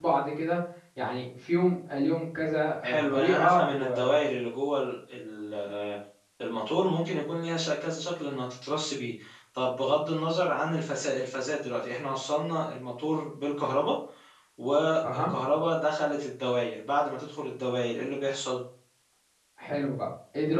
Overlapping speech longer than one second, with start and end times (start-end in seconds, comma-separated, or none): 2.8-4.1